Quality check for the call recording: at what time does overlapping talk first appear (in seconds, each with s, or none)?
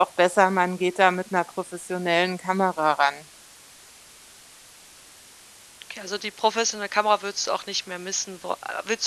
none